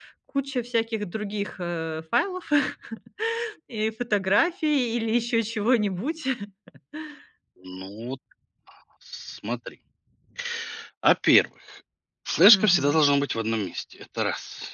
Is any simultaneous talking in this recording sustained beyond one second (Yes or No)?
No